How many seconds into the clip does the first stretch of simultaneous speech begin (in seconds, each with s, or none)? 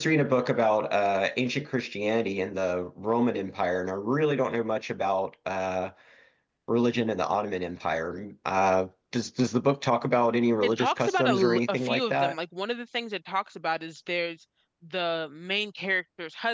10.6 s